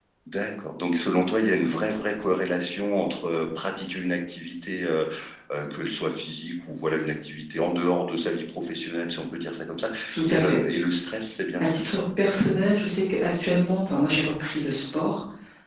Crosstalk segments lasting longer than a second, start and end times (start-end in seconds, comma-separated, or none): none